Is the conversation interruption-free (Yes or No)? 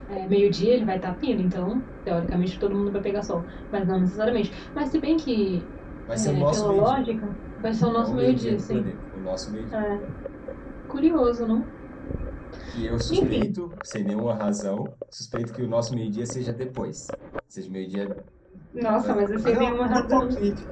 No